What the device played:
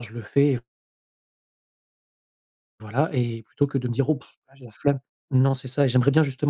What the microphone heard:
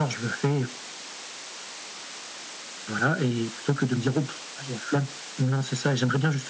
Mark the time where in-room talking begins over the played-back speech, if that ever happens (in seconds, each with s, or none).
none